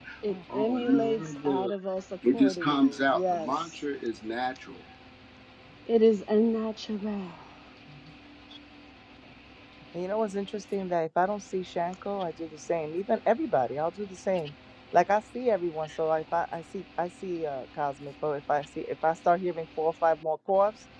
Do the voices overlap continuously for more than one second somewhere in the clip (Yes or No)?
Yes